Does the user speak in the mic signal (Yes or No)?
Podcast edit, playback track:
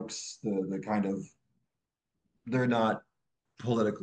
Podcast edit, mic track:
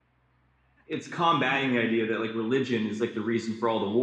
Yes